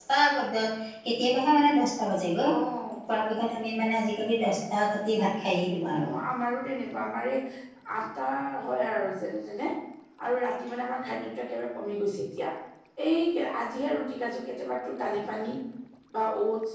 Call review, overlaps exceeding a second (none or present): none